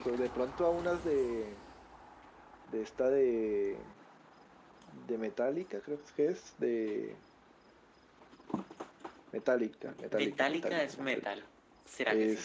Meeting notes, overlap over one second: present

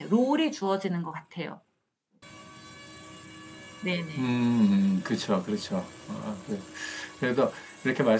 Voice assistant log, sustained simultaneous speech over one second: none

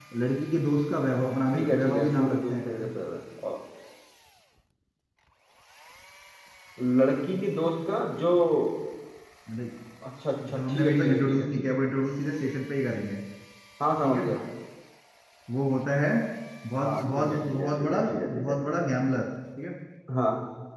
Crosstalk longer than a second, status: present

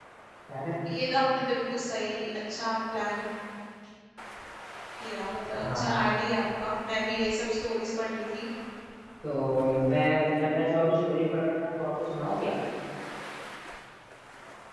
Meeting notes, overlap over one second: none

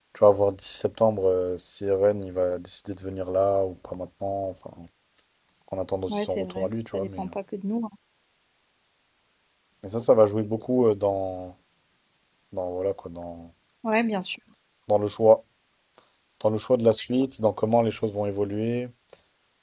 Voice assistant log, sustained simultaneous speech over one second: present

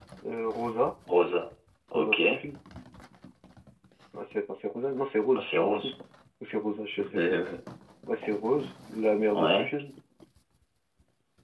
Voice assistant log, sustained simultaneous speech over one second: none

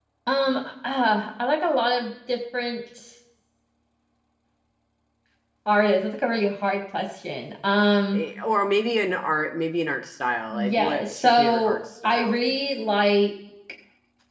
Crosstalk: present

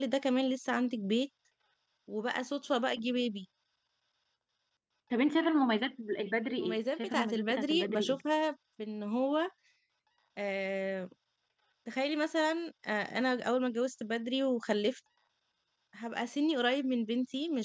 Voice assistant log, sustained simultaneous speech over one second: present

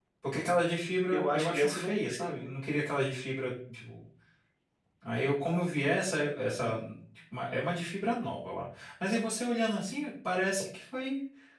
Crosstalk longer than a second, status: present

